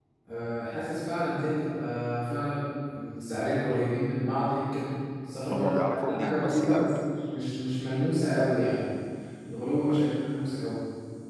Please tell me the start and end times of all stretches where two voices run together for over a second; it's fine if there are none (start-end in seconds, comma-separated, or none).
5.5-6.9